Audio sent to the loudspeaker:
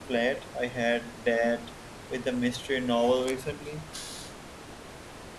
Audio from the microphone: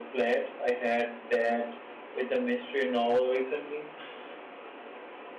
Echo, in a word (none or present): present